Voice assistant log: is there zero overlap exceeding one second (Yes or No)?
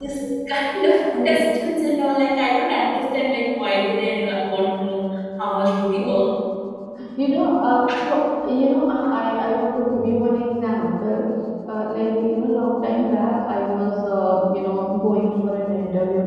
Yes